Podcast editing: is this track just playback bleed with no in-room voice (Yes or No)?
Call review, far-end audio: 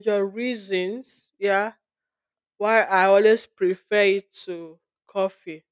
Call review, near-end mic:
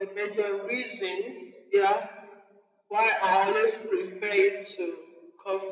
Yes